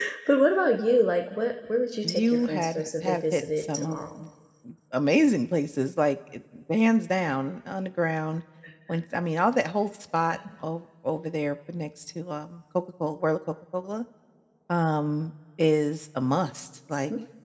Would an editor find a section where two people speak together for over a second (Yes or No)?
Yes